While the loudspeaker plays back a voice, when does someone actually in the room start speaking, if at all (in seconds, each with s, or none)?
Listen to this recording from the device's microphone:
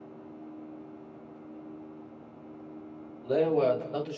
3.2 s